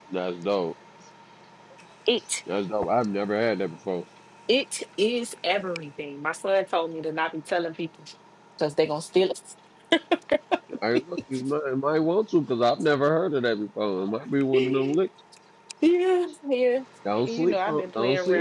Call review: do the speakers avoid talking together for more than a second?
No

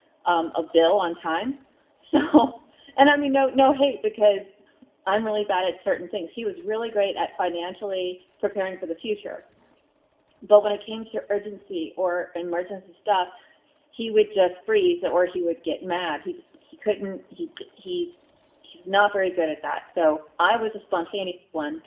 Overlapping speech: No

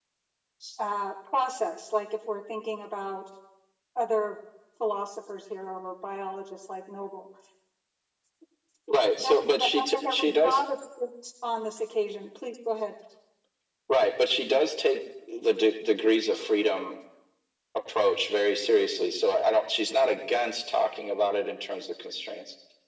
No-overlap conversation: No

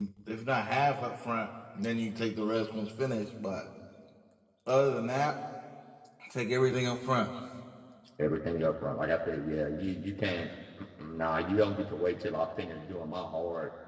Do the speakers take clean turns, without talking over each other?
Yes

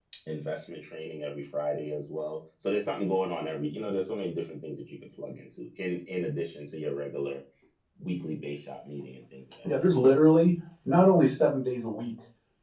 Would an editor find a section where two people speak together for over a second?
No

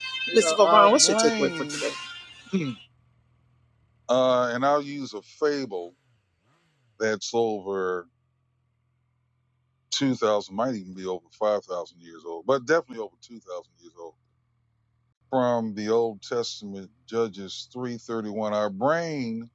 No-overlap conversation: No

